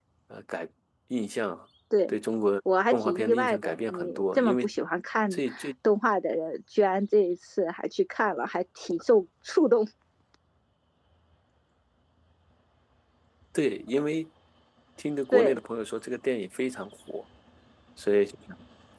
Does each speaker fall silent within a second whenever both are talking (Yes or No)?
No